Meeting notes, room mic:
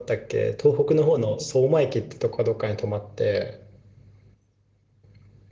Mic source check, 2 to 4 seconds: user only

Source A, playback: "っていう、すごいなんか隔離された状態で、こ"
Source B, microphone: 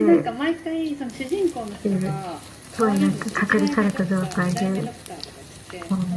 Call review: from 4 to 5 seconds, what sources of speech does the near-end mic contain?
both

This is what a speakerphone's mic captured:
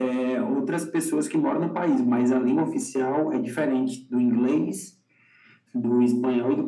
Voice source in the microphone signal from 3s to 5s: echo only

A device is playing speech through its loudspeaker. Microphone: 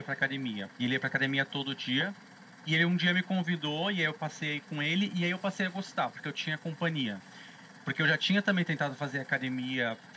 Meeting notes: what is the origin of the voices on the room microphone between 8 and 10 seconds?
echo only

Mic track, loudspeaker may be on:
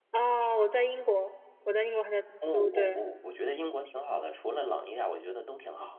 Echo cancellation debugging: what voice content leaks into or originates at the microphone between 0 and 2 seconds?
echo only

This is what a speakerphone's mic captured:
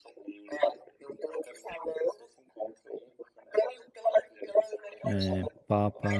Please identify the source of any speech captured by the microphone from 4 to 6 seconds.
both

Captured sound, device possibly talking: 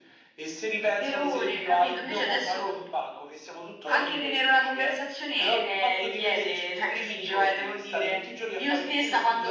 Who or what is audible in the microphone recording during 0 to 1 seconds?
echo only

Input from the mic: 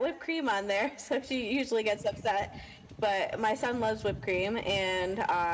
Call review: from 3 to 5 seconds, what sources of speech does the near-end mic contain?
echo only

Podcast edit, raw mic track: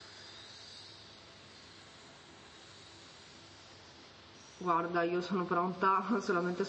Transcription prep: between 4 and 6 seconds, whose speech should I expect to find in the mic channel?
user only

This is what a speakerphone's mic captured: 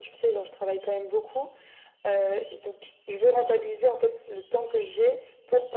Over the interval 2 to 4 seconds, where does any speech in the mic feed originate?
echo only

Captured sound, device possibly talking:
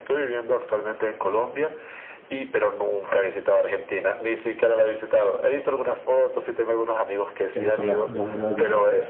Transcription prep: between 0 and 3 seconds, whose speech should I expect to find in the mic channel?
echo only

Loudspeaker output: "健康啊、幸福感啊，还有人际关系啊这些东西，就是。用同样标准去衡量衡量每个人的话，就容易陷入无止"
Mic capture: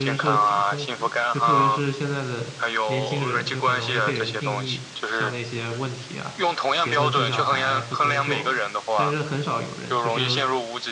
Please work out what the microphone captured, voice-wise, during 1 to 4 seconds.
both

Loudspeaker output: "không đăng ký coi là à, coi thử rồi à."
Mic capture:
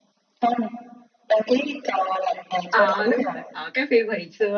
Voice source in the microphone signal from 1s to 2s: echo only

